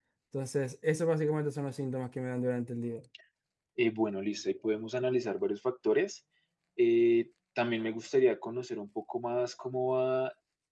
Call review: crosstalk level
none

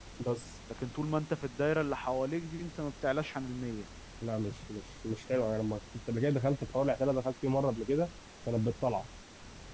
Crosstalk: none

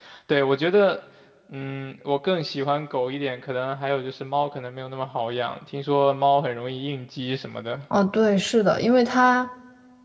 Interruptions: none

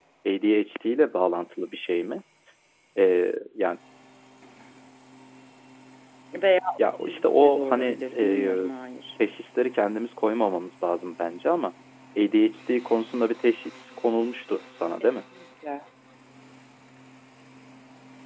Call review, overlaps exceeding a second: present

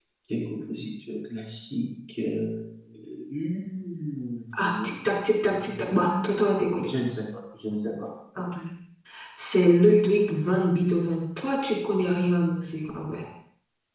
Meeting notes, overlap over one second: none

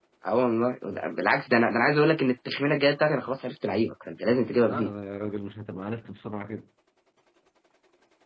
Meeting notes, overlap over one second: none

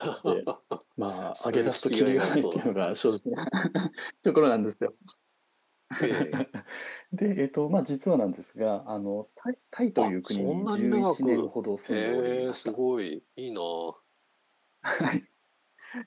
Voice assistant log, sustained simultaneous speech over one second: present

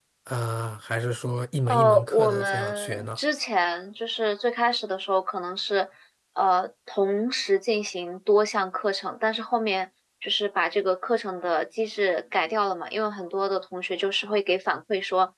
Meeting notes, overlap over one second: present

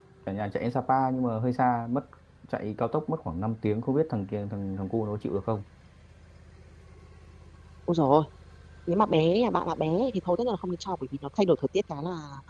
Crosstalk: none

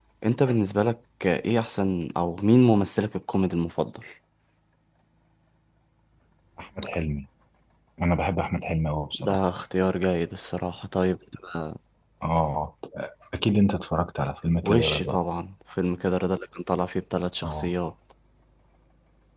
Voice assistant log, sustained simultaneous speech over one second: none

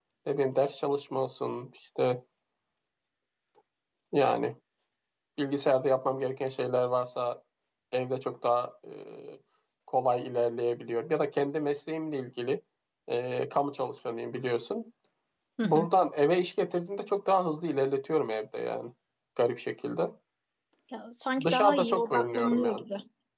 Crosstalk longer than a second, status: present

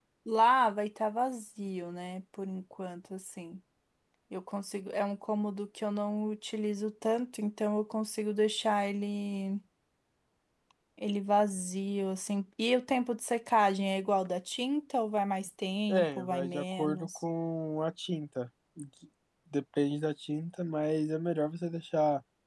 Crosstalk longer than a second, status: present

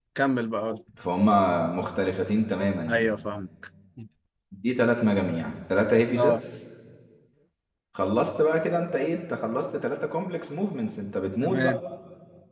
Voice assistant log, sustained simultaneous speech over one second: none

